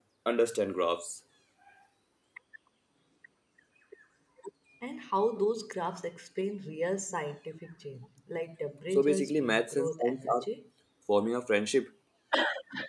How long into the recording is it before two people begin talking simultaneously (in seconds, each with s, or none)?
8.9 s